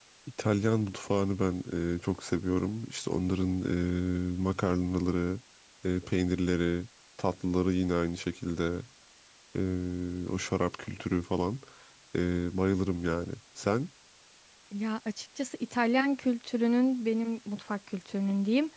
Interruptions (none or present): none